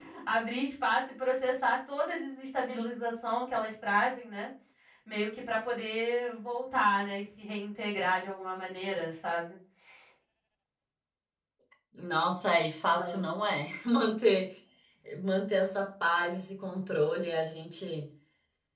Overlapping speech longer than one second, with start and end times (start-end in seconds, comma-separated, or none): none